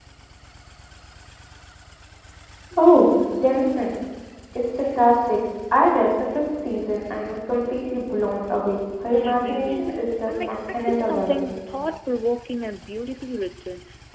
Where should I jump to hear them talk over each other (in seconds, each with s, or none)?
9.2 s